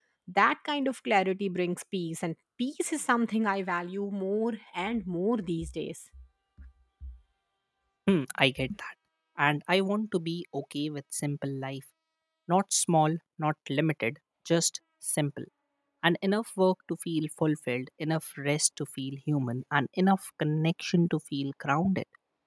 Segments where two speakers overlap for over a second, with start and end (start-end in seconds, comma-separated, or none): none